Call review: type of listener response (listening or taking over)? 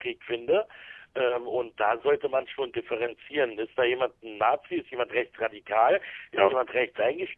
listening